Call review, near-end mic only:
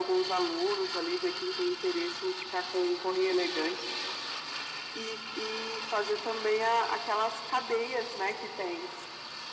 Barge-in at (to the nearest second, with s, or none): none